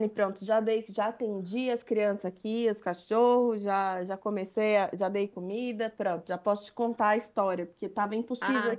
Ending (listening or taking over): taking over